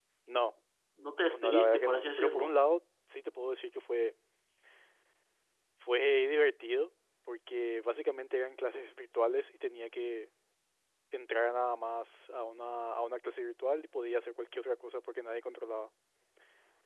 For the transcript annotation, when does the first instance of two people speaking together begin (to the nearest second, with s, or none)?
1 s